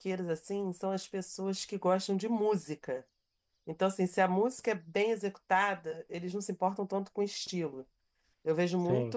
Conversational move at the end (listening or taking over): listening